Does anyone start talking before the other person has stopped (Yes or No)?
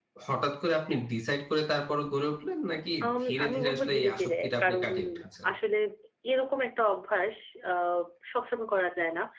Yes